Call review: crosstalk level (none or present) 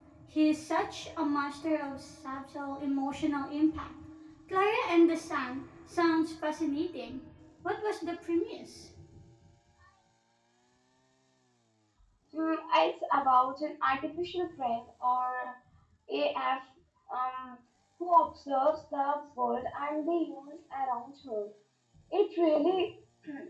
none